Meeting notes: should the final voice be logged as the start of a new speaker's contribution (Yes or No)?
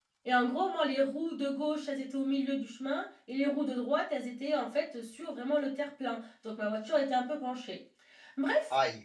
No